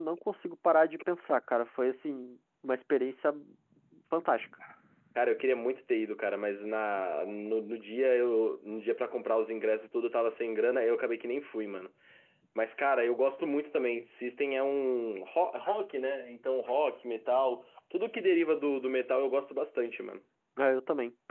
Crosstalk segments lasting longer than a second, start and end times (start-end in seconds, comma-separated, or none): none